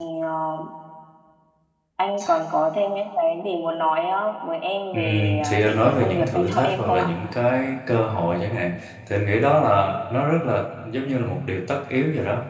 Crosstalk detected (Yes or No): Yes